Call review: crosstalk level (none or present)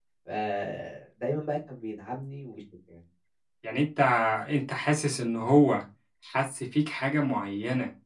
none